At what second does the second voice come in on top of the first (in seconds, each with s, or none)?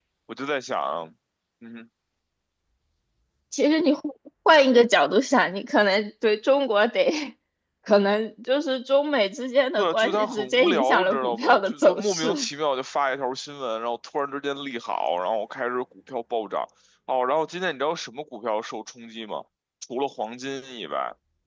9.8 s